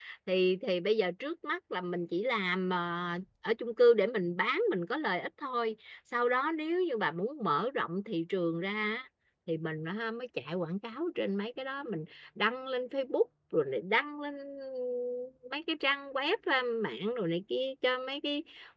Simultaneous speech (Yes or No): No